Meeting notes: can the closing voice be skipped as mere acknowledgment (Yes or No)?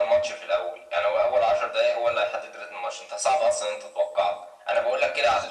Yes